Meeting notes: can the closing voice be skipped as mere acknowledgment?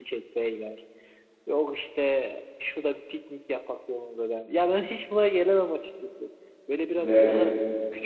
Yes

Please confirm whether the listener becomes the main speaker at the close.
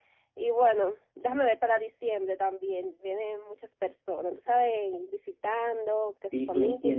Yes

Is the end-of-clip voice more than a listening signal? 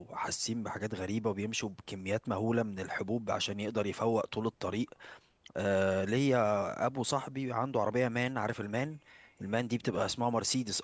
No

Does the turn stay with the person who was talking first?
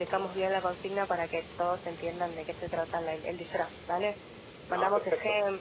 Yes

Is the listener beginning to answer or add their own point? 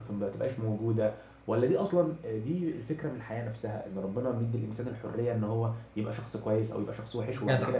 Yes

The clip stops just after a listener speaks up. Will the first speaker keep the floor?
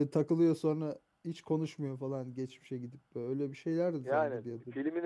No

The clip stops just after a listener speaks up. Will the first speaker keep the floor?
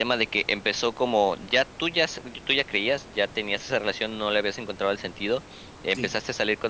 Yes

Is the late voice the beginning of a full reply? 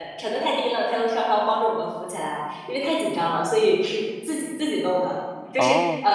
No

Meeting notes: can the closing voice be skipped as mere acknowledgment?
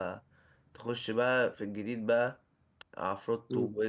Yes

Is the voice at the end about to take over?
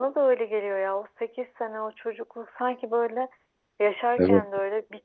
No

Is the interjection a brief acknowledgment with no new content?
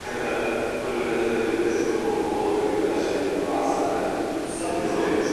No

